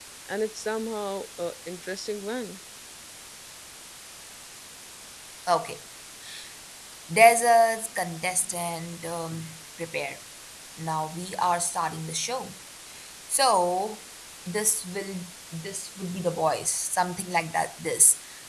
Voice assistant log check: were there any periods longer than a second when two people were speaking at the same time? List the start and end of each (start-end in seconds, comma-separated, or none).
none